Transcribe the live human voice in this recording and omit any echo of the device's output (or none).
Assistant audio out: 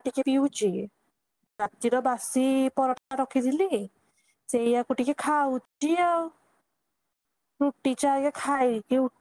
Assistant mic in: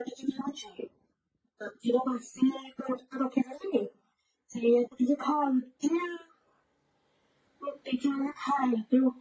none